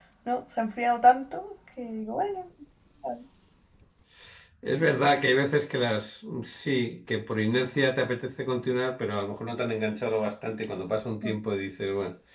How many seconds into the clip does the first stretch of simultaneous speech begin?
none

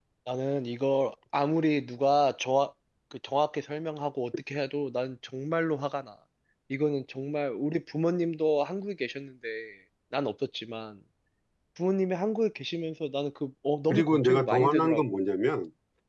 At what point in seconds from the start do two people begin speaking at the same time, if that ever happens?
13.9 s

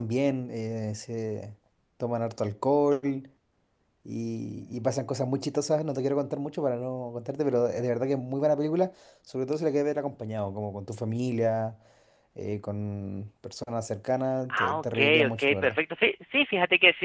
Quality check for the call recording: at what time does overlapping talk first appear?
14.5 s

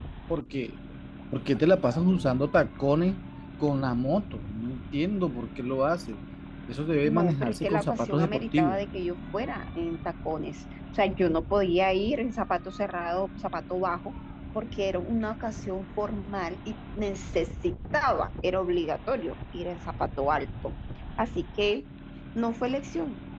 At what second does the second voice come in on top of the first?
7.0 s

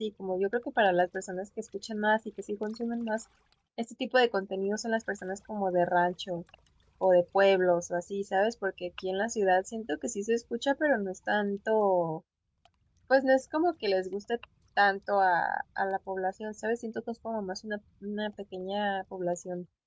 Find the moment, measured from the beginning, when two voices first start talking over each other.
none

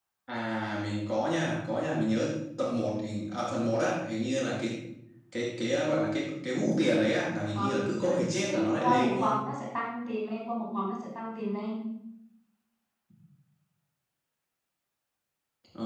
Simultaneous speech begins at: 7.5 s

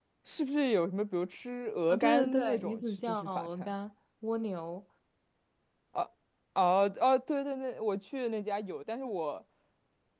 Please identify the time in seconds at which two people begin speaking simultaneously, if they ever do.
1.9 s

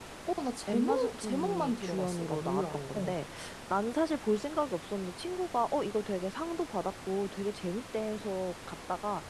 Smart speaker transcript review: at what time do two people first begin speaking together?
0.7 s

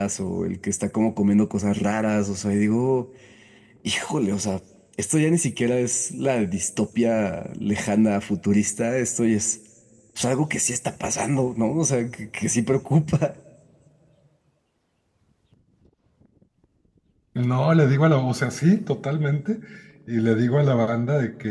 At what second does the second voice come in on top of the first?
none

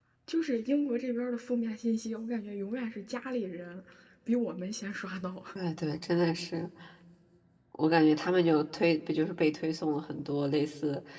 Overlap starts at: none

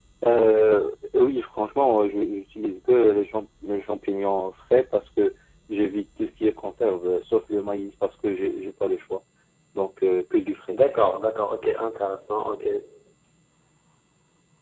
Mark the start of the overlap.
none

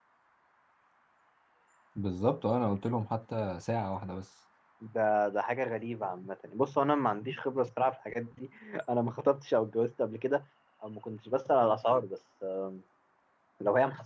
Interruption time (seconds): none

